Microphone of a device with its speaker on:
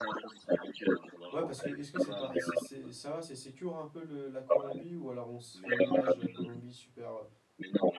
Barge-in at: 1 s

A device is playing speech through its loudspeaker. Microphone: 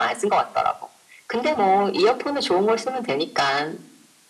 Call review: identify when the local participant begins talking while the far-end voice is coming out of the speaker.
none

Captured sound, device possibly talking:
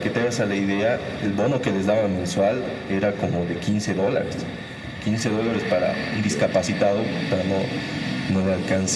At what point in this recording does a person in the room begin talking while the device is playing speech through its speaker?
6 s

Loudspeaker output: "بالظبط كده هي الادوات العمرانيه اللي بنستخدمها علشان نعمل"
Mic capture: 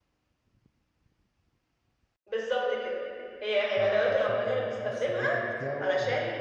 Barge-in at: 4 s

